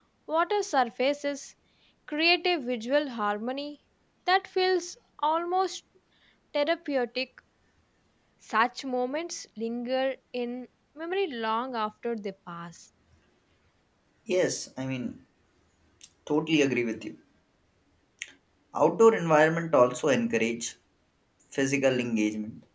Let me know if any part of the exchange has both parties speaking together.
No

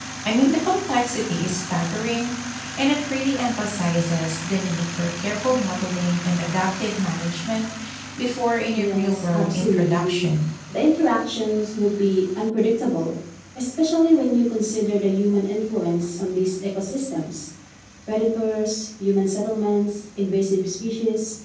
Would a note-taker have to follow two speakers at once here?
Yes, from 8.7 s

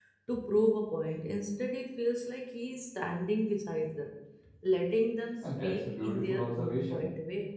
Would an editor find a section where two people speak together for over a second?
Yes, from 5.4 s

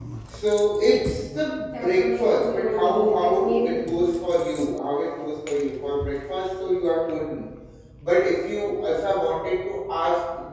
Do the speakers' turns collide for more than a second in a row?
Yes, from 1.7 s

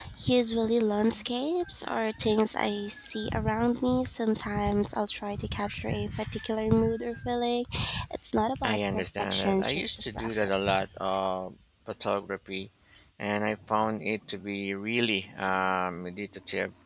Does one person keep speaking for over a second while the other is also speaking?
Yes, from 8.6 s

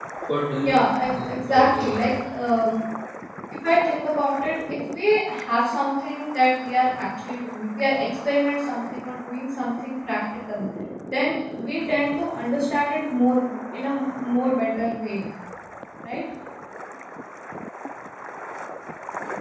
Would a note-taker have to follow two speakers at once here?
Yes, from 0.6 s

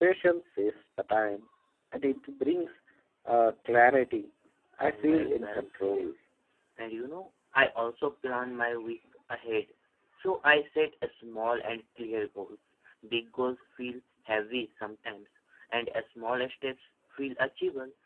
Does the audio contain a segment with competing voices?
Yes, from 4.8 s

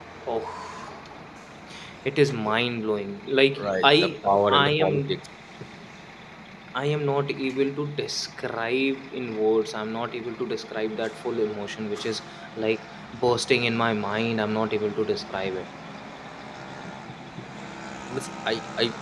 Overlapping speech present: Yes, from 3.6 s

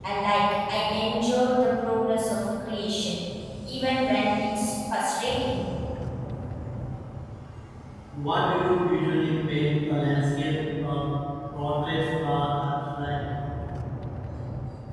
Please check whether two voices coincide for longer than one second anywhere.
No

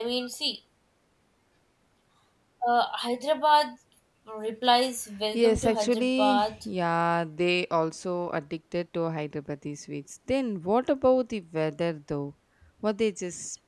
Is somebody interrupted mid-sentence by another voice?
Yes, from 5.3 s

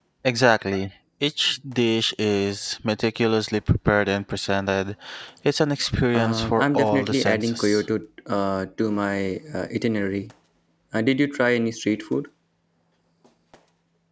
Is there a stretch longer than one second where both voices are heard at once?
Yes, from 6.1 s

